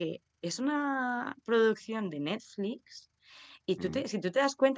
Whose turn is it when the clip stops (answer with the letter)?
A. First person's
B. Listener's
A